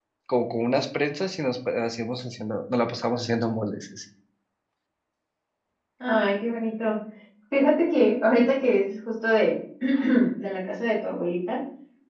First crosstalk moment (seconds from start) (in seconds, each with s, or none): none